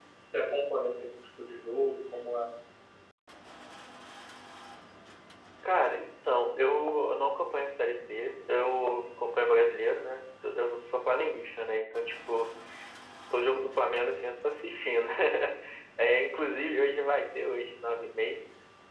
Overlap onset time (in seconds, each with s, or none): none